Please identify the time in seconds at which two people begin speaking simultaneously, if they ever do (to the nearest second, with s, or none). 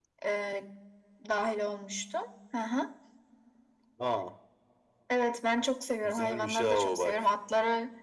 6 s